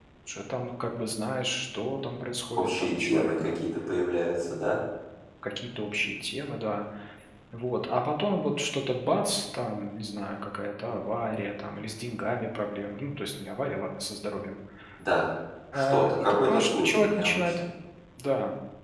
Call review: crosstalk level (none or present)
present